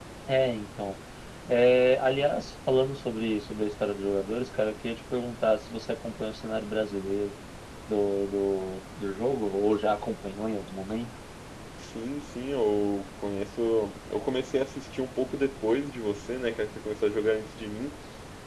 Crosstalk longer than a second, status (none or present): none